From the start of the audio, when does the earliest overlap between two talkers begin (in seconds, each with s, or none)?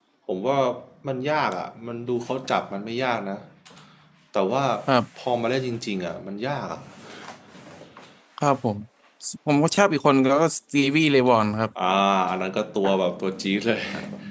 none